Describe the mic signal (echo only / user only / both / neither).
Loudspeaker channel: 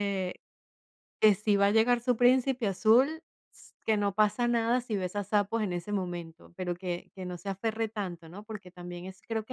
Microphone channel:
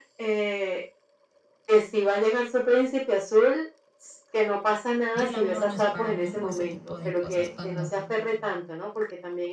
both